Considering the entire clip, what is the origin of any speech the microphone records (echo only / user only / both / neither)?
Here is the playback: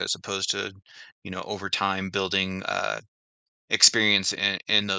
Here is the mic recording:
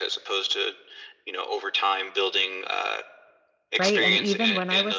both